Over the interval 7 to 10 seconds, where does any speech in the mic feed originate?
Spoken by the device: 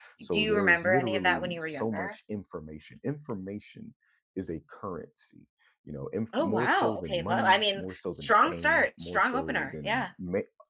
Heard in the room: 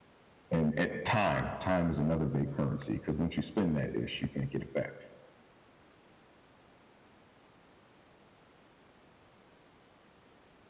neither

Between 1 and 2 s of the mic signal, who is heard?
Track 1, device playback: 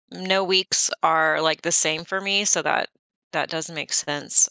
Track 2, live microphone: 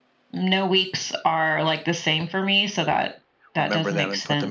echo only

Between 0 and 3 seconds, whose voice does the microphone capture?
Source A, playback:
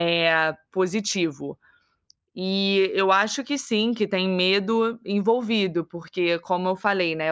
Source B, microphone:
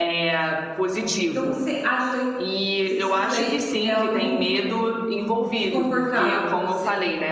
both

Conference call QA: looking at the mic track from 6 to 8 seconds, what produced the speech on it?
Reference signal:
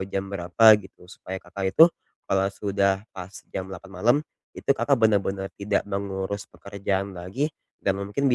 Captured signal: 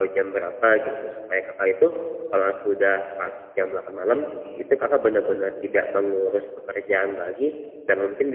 echo only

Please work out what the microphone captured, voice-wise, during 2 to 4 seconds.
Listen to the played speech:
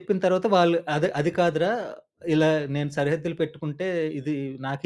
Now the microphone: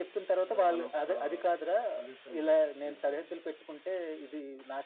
both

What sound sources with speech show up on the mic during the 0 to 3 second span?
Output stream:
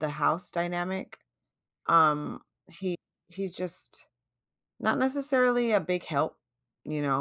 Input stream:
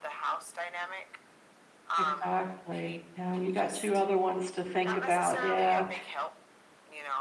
both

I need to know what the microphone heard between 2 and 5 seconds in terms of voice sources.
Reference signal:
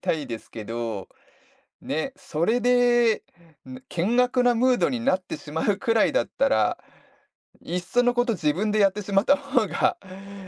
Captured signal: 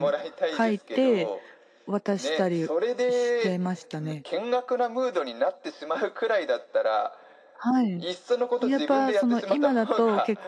both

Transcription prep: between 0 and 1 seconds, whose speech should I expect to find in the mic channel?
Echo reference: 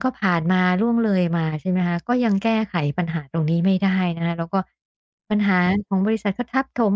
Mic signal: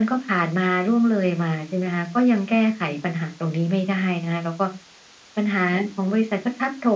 echo only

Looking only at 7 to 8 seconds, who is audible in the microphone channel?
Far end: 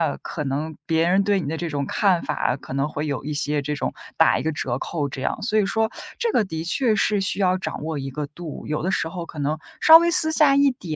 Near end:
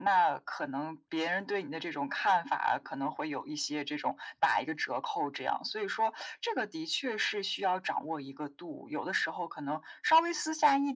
echo only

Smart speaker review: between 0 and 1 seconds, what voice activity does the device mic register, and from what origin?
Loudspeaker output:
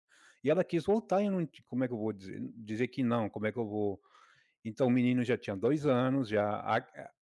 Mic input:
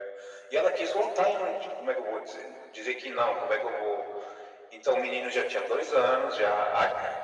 echo only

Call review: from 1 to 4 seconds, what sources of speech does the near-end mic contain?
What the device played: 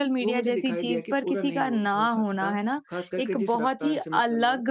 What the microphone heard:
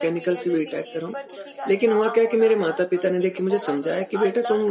both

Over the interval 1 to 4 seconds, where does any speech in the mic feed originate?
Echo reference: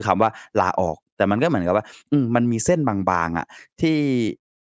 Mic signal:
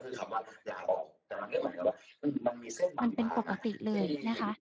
both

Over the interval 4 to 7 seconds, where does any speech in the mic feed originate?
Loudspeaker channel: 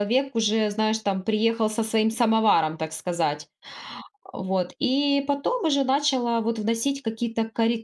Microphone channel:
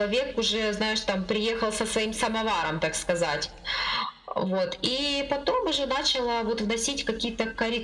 echo only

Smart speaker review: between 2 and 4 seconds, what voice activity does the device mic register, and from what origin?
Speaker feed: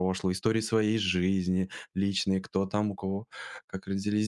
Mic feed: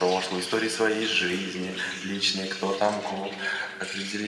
echo only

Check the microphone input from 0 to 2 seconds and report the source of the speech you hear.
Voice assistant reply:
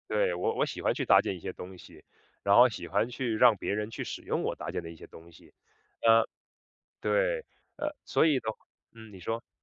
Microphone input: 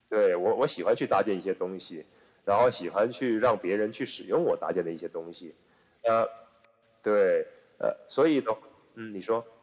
echo only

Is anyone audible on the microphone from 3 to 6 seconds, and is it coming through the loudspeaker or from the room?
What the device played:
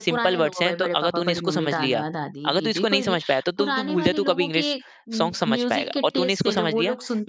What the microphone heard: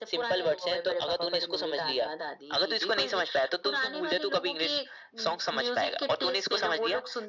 echo only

